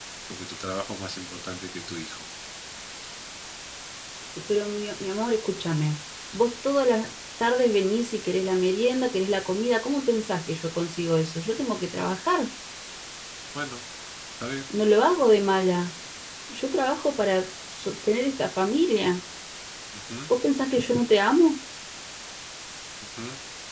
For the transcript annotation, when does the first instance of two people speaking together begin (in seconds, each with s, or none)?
none